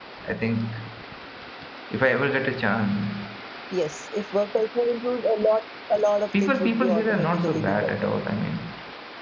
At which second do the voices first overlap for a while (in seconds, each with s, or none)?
6.3 s